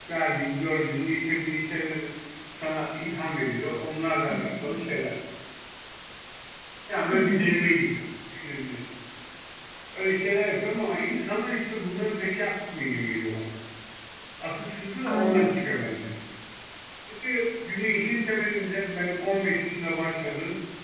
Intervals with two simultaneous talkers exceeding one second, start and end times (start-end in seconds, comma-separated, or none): none